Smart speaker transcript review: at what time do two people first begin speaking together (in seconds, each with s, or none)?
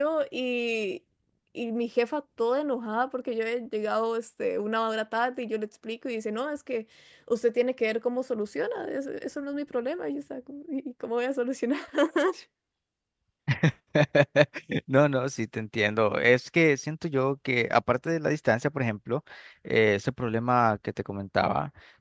none